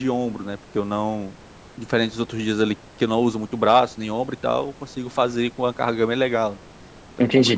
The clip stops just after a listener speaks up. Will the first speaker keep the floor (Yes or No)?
No